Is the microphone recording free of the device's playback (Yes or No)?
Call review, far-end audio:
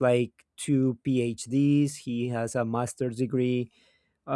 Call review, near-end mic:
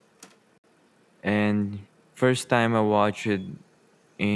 Yes